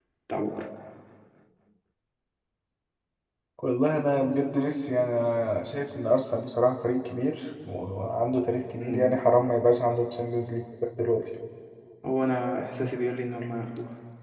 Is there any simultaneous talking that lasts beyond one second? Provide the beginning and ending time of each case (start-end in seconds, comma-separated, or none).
none